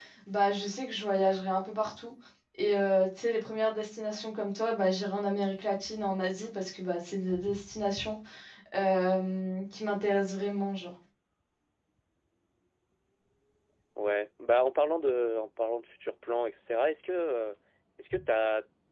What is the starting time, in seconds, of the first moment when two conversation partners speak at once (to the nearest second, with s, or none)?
none